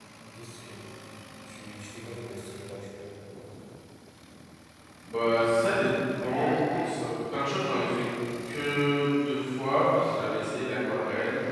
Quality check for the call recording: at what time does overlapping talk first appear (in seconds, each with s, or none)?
none